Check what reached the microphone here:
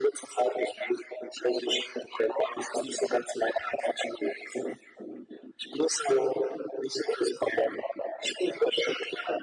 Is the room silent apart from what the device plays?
Yes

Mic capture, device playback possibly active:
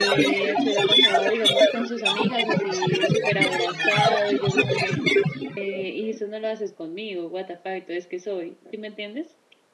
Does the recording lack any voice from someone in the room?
No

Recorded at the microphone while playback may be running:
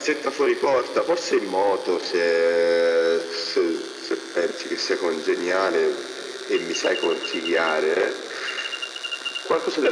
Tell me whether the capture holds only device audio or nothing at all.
Yes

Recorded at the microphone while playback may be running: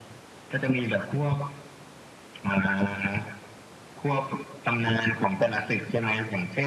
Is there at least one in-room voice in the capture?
No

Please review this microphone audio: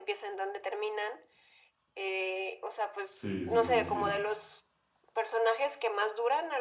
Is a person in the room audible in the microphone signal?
Yes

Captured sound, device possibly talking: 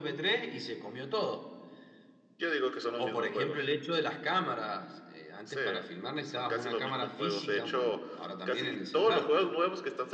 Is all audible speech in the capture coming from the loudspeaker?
Yes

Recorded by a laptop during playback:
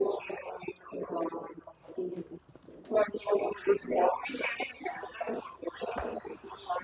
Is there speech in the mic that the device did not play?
No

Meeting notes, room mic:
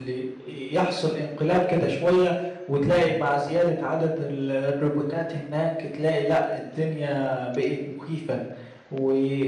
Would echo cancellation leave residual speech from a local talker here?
Yes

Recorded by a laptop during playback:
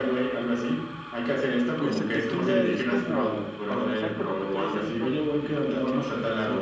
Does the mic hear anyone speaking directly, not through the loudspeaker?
Yes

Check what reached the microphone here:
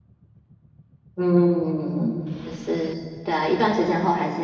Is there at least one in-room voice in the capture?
Yes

